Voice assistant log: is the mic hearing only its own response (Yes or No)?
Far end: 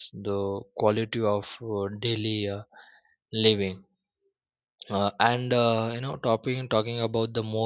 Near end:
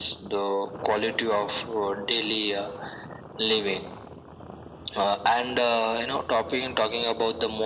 Yes